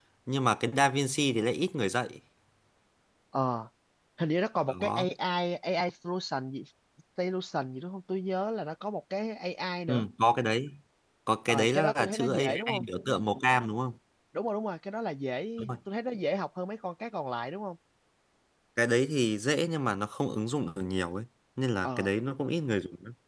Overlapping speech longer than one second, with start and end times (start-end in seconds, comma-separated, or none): 11.5-12.8